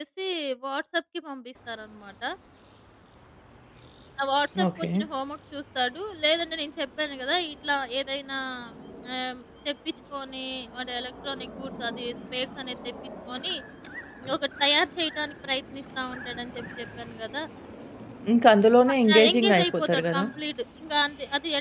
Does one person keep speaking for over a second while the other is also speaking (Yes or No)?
Yes